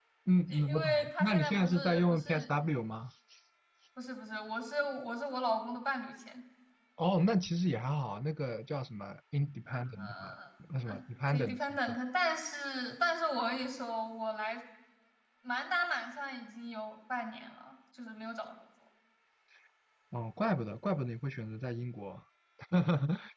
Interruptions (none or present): present